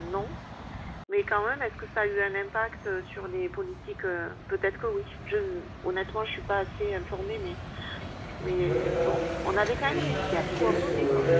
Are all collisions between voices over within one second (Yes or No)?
No